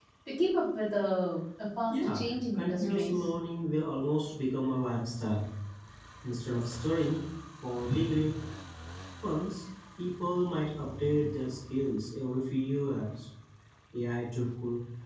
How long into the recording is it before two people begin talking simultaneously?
2 s

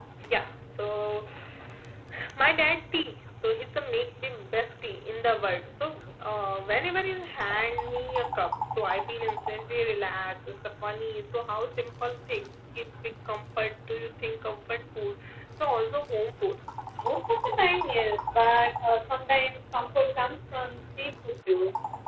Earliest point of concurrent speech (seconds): none

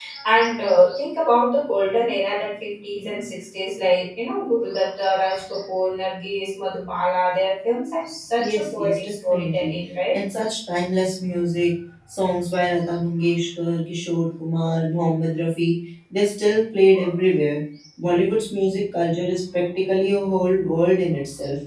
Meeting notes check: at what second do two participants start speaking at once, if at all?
8 s

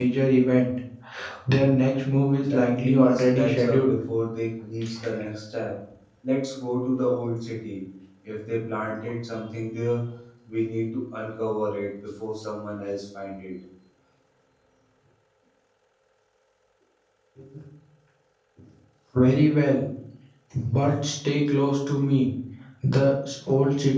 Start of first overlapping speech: 2 s

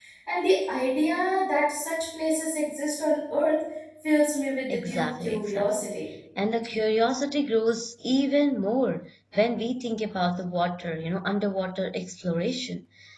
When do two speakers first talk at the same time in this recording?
5 s

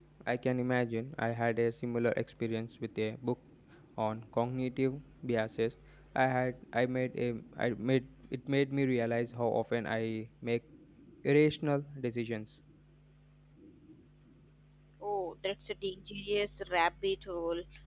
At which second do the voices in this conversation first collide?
none

